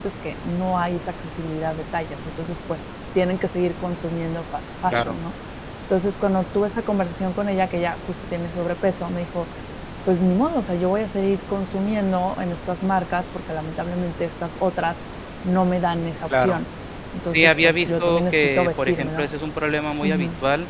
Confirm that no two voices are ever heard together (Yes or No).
No